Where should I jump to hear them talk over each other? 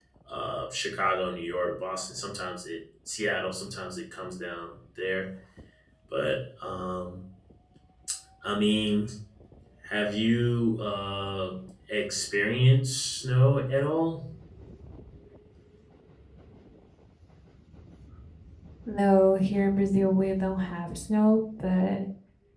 none

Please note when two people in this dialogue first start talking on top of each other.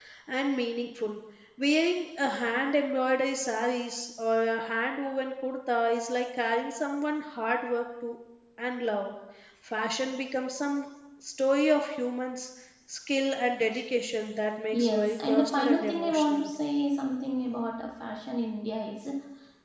15 s

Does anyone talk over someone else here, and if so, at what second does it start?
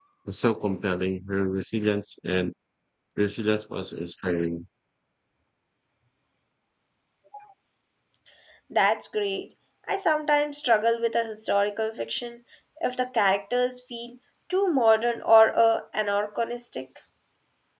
none

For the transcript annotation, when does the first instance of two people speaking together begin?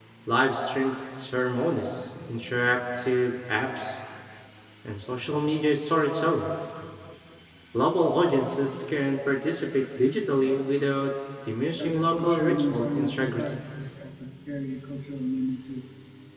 12 s

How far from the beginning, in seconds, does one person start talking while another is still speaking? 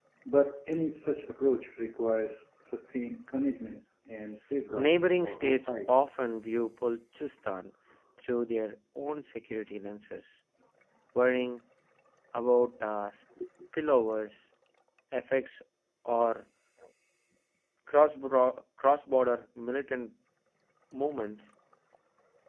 5 s

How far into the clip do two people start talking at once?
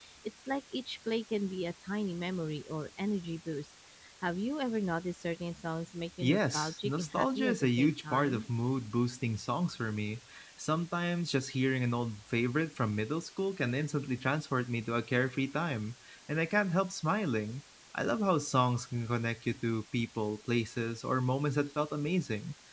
6 s

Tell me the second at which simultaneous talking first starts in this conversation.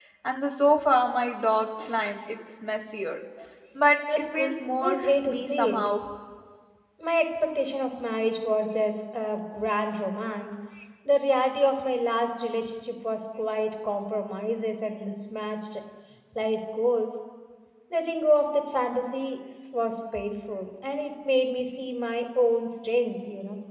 4 s

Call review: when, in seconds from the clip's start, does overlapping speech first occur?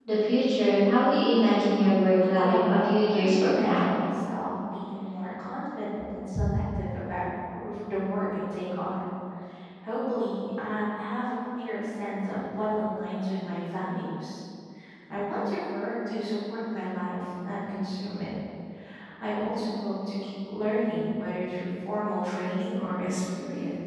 2 s

